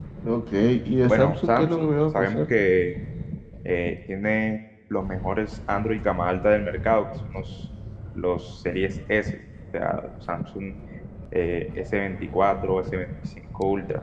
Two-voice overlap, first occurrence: 1 s

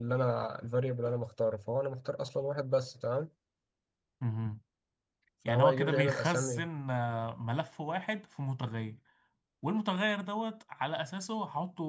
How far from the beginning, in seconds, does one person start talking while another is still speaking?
5 s

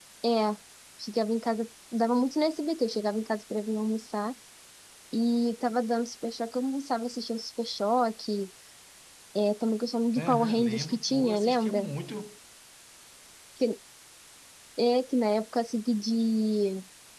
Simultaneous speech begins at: 10 s

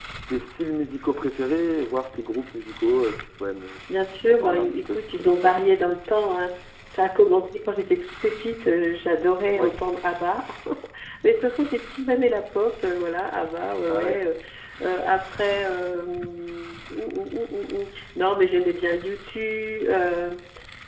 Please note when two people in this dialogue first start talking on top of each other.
4 s

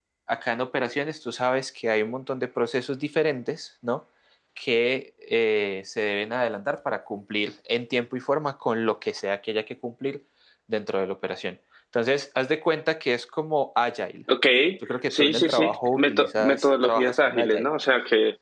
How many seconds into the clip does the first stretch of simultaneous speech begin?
15 s

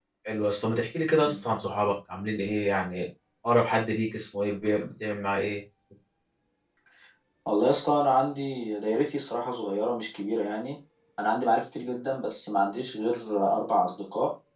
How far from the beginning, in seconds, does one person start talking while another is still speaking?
none

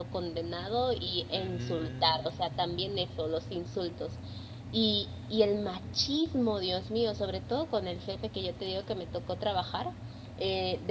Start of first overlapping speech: 1 s

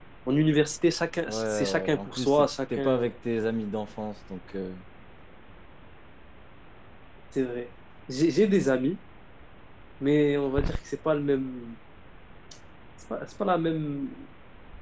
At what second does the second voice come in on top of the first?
1 s

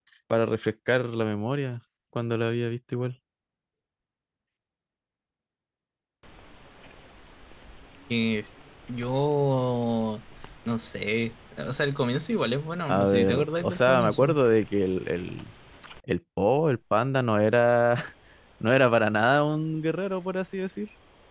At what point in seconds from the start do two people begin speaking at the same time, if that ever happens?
13 s

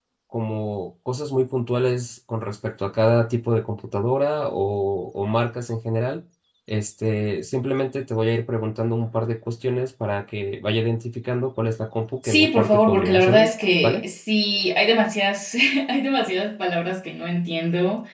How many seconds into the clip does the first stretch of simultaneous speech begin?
12 s

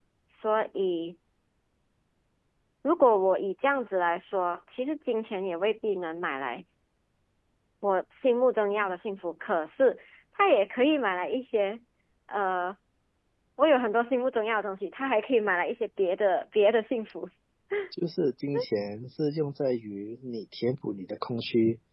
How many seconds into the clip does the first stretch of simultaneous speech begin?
none

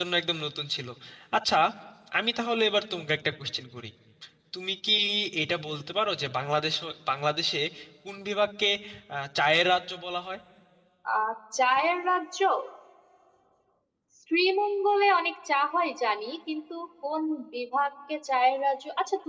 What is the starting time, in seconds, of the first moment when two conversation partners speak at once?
none

